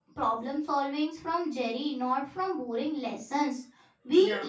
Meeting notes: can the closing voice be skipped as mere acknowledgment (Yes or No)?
Yes